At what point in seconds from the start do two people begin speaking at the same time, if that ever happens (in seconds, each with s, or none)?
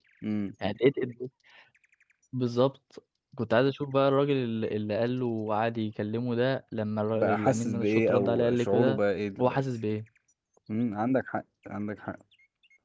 7.1 s